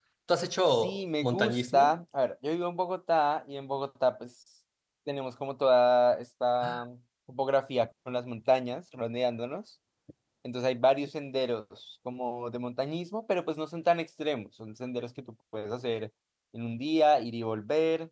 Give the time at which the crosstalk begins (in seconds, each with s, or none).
0.7 s